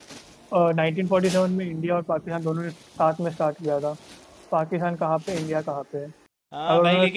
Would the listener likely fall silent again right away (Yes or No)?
No